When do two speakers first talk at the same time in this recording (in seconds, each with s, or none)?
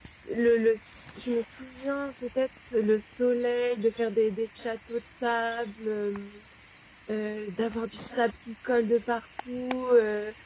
none